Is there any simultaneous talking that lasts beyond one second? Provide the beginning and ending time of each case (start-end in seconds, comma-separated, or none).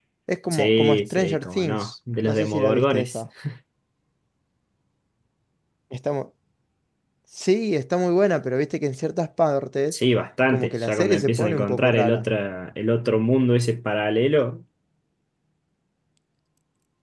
0.5-3.3, 10.5-12.2